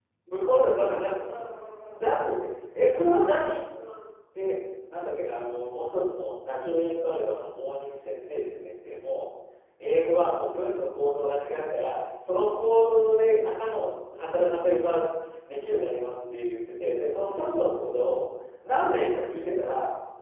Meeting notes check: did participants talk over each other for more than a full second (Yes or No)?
No